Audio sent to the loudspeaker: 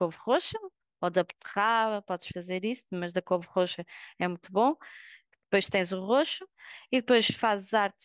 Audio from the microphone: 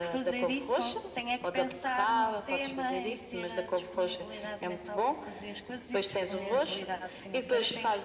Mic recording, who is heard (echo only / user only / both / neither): both